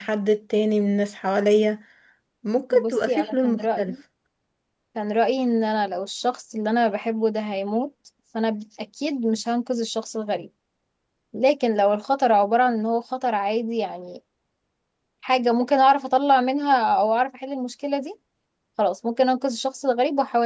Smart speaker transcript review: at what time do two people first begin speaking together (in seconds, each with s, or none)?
2.7 s